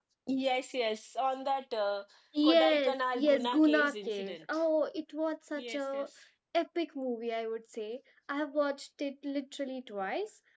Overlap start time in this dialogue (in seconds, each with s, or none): 2.4 s